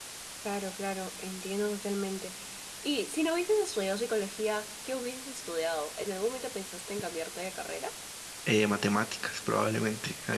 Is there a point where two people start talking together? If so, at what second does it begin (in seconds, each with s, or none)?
none